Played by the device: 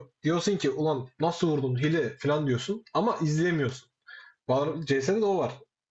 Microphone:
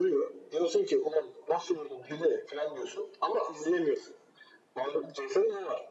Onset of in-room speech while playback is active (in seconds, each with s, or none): none